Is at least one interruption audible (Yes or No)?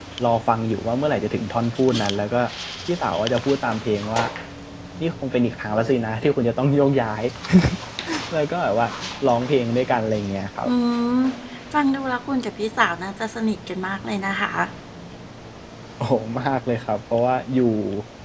No